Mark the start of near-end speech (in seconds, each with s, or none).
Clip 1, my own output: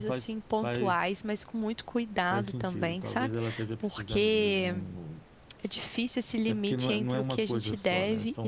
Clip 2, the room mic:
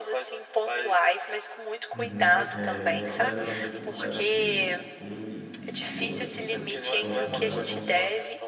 1.9 s